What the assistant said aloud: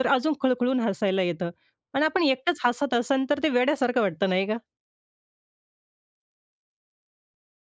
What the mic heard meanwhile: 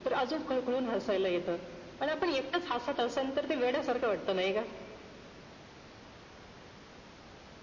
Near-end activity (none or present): none